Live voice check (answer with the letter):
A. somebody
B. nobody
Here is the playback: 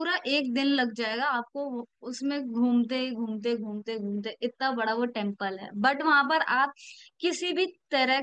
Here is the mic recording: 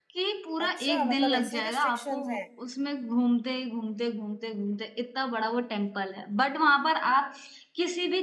A